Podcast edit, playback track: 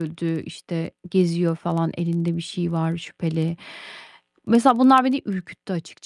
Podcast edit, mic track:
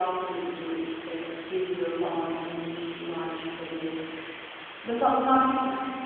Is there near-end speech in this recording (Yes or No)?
No